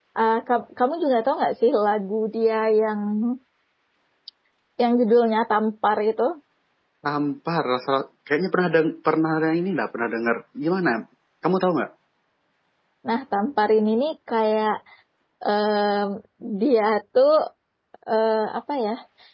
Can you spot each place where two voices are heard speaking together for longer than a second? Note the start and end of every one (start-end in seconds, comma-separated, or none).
none